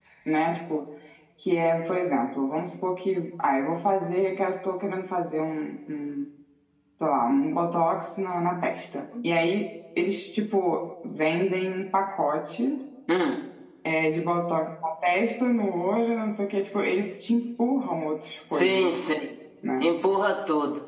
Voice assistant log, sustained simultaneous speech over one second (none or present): none